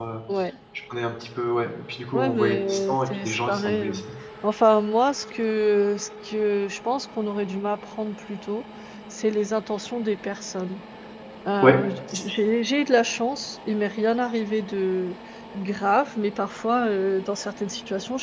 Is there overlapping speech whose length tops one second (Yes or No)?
Yes